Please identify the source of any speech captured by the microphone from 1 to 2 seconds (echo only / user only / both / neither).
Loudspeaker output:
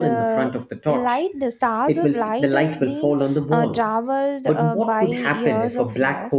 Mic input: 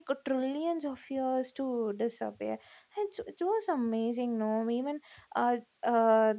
user only